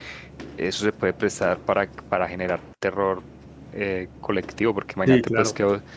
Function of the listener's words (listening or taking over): listening